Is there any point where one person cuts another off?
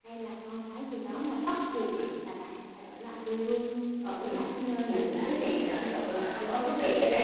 Yes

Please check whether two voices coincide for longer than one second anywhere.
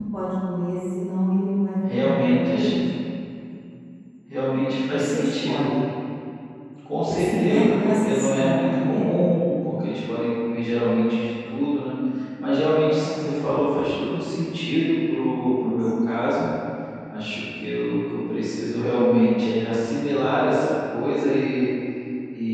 Yes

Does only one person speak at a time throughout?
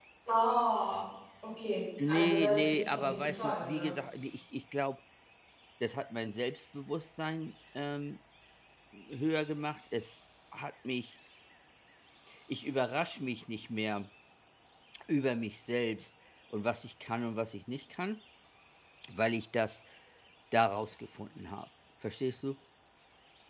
No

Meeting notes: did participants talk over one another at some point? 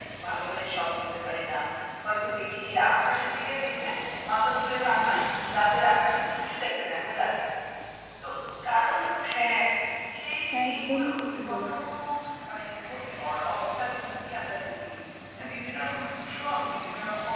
Yes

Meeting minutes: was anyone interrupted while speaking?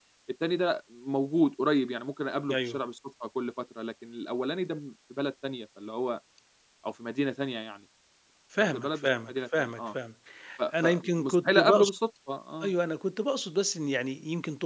Yes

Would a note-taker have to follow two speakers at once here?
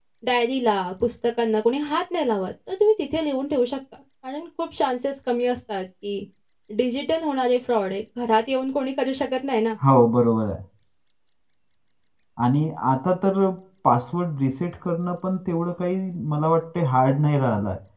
No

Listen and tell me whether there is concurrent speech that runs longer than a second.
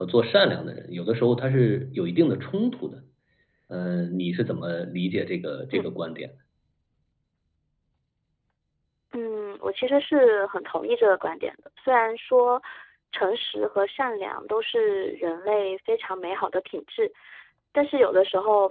No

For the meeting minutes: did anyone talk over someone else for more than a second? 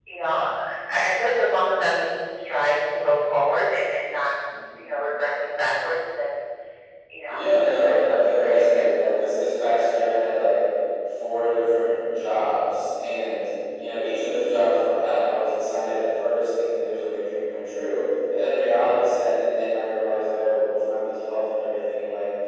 Yes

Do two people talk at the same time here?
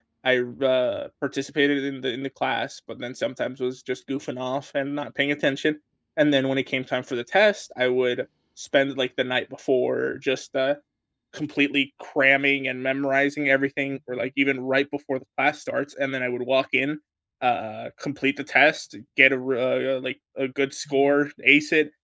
No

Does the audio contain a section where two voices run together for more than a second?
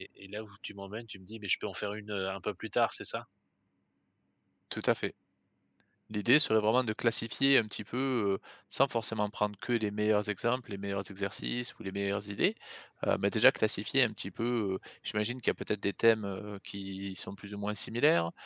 No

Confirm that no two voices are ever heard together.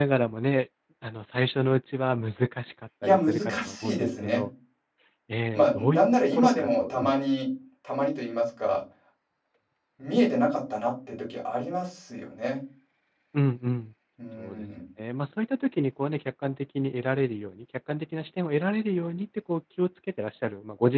No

